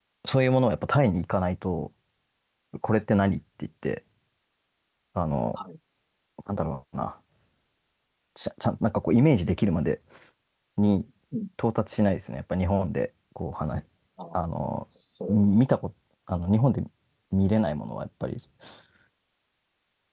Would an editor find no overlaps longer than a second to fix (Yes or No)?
Yes